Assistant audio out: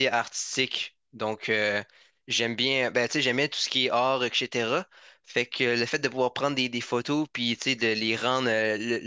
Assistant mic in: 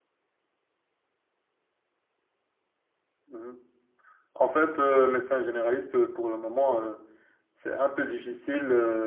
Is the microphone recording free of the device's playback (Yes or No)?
Yes